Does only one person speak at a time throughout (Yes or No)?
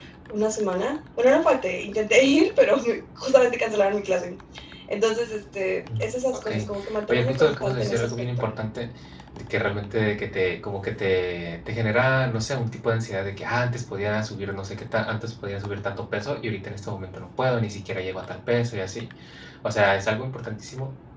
No